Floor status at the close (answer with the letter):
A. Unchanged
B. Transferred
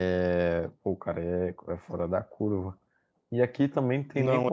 A